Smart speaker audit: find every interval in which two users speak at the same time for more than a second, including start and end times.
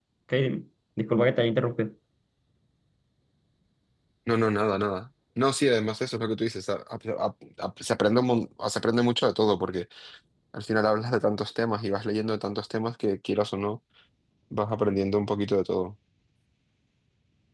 none

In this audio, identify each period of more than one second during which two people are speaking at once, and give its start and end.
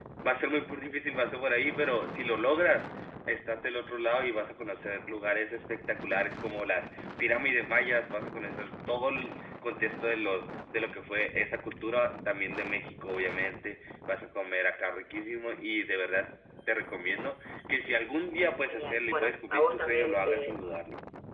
18.7-20.6

